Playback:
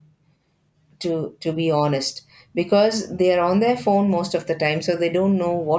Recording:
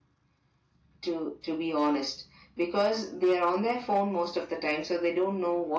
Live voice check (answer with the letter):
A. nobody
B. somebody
A